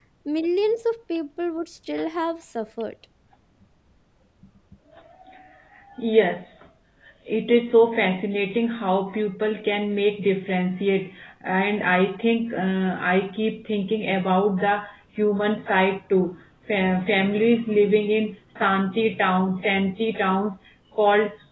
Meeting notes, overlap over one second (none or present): none